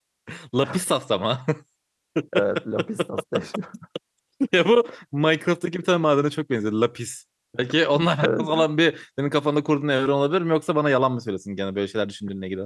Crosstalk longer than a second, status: none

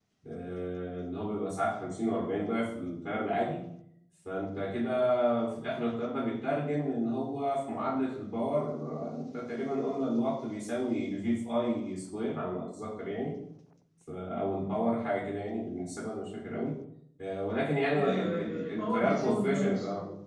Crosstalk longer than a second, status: present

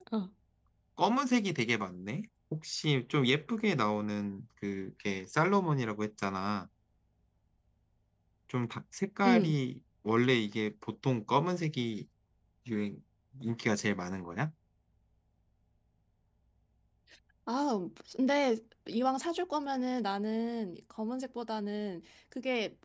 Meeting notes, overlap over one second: none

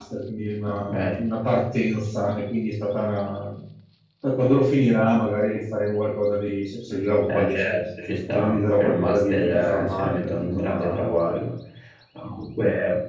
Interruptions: present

